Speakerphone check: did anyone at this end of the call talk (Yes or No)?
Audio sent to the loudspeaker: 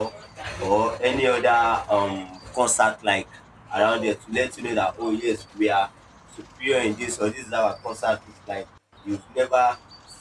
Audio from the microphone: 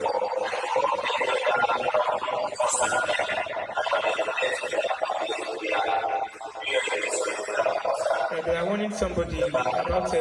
Yes